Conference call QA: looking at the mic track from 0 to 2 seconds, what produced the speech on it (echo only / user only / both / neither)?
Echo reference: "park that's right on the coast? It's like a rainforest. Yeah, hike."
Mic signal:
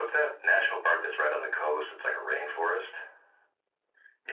echo only